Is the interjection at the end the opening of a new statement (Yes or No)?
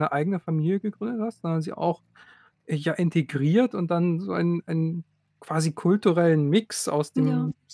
No